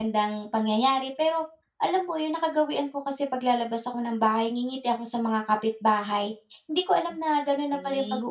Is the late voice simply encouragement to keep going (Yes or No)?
Yes